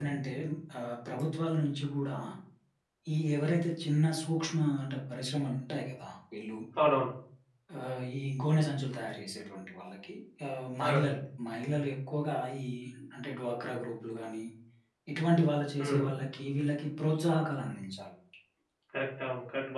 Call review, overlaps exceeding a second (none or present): none